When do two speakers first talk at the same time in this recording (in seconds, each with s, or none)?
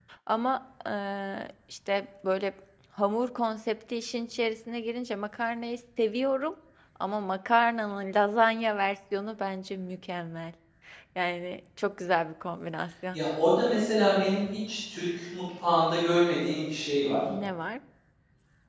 none